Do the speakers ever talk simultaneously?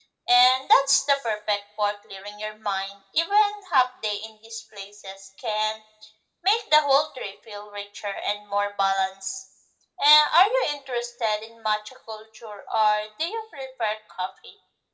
No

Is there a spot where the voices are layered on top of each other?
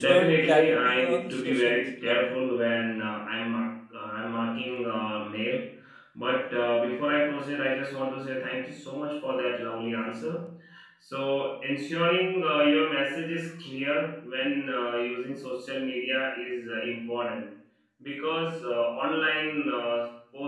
Yes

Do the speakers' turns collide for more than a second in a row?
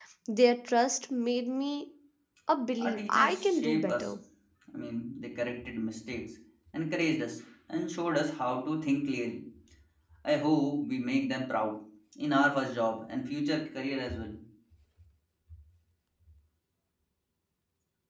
Yes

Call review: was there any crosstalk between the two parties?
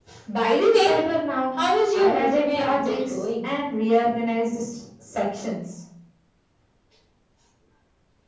Yes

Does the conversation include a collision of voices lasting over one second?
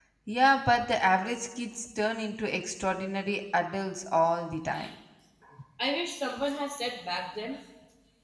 No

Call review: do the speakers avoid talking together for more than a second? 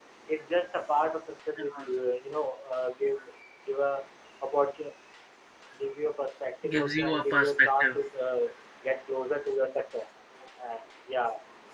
No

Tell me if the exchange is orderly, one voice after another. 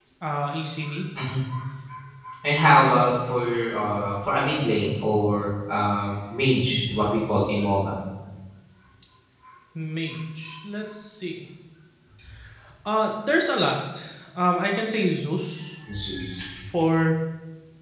Yes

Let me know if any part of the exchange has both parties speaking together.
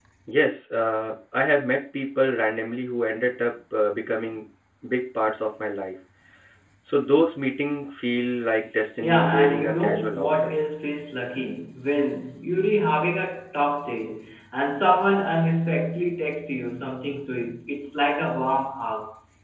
Yes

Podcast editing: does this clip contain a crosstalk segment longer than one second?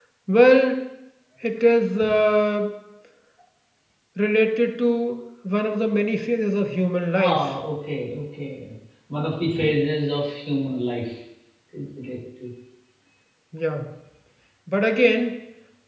No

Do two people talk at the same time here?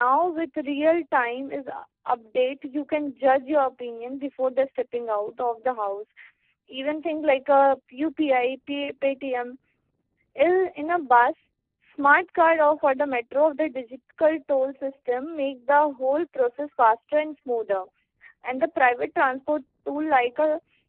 No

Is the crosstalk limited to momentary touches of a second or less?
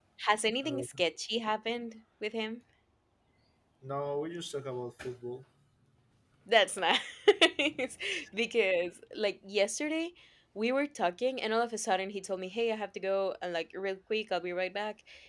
Yes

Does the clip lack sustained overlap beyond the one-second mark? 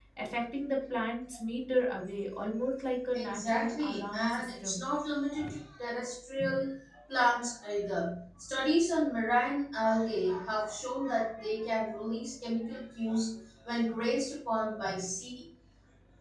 No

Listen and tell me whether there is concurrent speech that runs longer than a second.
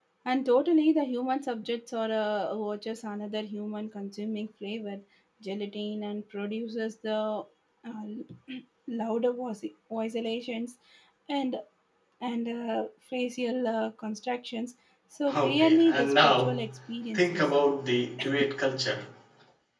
Yes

